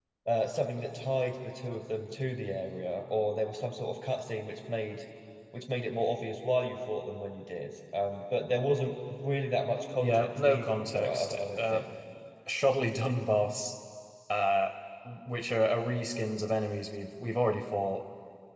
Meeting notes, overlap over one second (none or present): present